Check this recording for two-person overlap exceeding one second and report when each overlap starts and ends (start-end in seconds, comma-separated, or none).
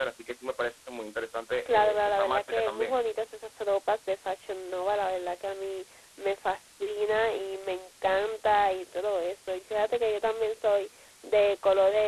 1.7-2.9